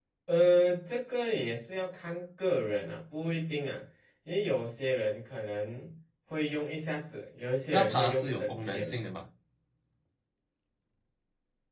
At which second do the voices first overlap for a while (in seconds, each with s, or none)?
7.7 s